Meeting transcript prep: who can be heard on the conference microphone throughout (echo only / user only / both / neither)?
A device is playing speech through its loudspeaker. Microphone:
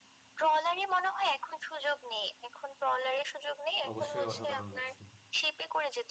both